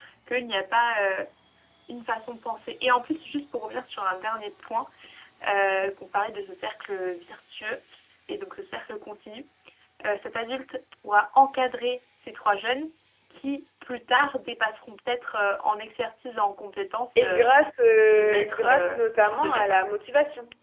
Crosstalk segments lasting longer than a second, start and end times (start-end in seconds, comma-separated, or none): 18.0-19.8